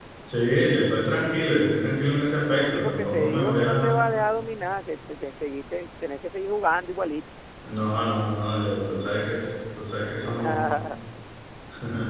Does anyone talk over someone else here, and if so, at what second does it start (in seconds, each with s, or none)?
2.6 s